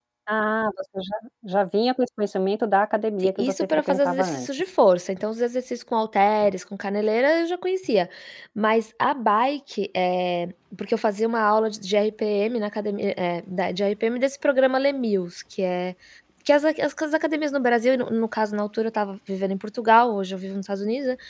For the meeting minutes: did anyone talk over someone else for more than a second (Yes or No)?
Yes